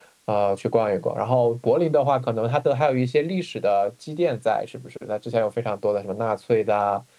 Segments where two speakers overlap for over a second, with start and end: none

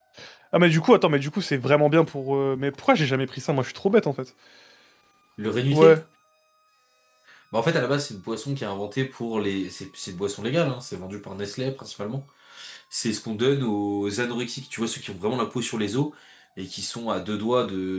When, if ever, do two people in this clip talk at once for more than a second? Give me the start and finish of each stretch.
none

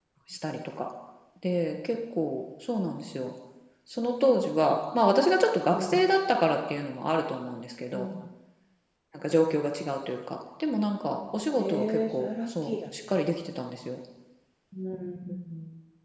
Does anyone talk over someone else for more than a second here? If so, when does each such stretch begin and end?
11.6-12.8

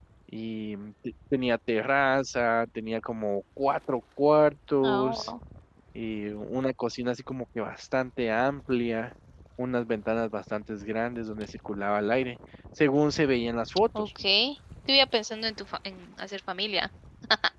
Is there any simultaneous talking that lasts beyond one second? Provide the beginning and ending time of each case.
none

